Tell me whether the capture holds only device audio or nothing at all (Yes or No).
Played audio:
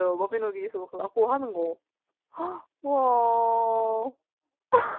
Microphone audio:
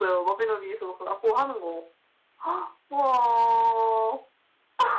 Yes